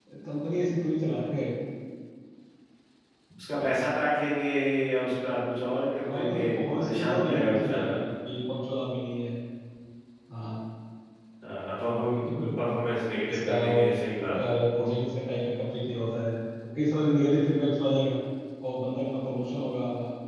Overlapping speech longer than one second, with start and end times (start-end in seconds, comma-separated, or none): 6.0-7.9